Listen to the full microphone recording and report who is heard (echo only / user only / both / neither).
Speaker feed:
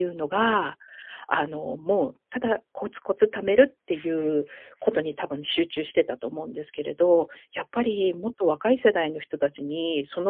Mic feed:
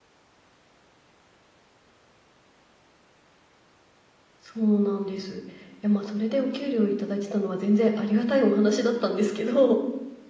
user only